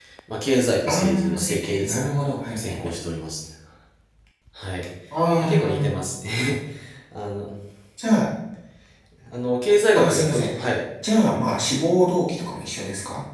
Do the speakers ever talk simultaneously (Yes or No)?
Yes